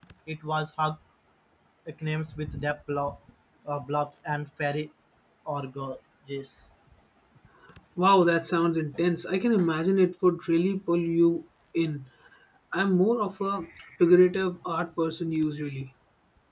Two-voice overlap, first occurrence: none

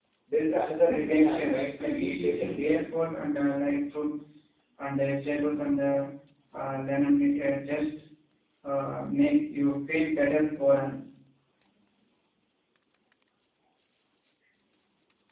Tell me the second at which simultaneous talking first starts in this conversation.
0.8 s

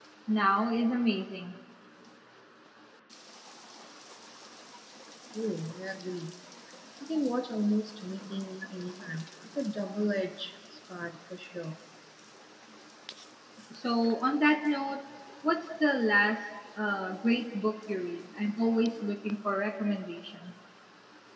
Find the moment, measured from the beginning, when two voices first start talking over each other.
none

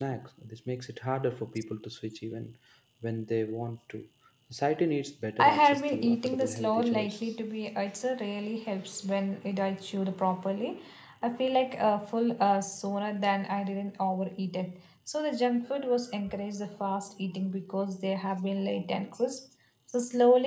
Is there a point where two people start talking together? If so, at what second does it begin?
5.4 s

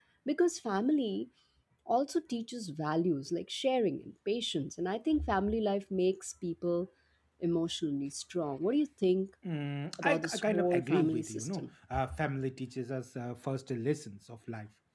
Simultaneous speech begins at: 10.0 s

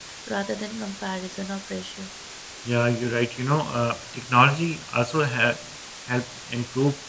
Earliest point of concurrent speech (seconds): none

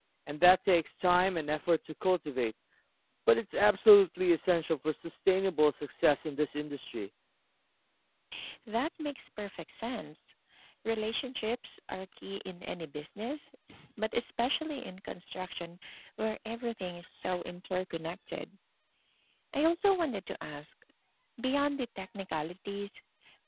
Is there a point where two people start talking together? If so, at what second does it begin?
none

